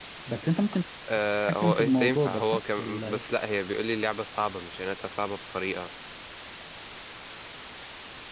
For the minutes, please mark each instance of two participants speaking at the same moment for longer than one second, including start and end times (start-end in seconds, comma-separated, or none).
1.5-3.2